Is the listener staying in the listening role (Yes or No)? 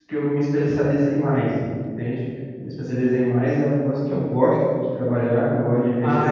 No